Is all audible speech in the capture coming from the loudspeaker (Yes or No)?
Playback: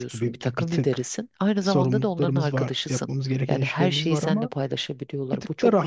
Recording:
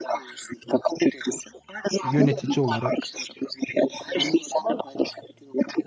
No